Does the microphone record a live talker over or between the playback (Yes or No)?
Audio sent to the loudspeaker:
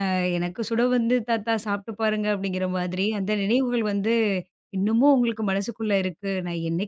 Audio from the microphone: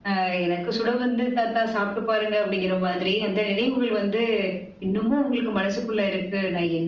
No